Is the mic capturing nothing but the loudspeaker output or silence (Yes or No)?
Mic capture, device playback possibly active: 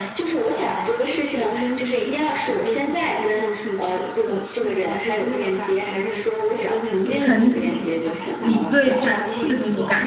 No